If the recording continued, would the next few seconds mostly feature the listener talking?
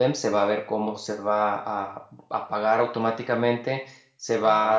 No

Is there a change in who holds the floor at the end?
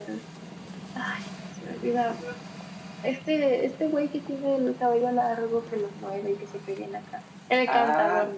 Yes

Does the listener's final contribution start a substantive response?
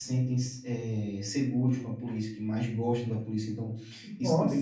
No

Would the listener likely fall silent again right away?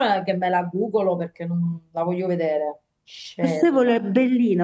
No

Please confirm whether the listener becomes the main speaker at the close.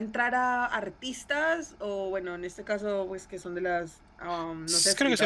Yes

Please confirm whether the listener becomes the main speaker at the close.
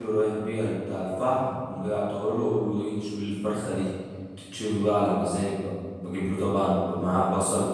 No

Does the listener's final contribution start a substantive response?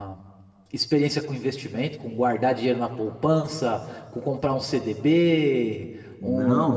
Yes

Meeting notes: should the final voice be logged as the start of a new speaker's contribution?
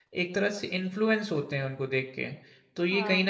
No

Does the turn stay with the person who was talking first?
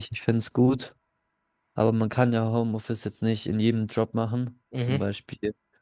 Yes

